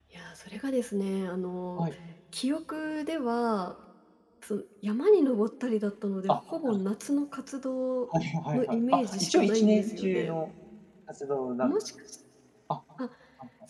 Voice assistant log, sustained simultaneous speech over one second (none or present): present